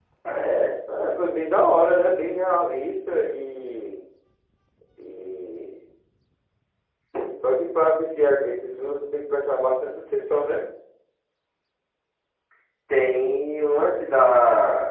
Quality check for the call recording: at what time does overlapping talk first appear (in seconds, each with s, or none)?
none